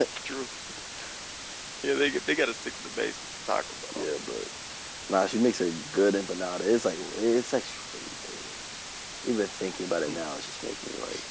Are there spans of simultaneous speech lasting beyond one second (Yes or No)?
No